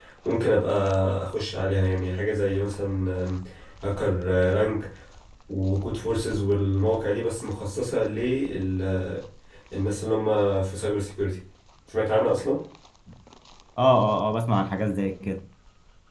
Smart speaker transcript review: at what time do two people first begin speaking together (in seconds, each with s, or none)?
none